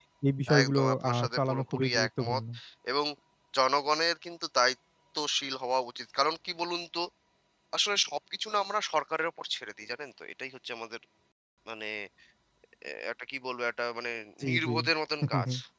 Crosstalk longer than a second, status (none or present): present